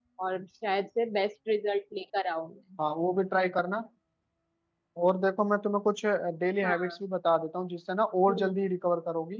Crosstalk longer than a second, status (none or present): none